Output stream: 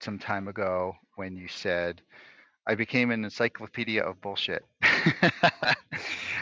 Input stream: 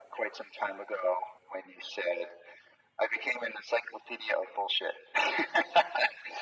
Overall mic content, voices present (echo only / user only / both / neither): echo only